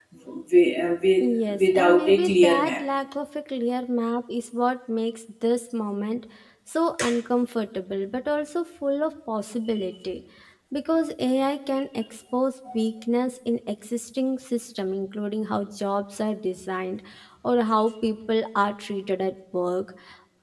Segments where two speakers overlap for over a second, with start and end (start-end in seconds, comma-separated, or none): 1.2-2.8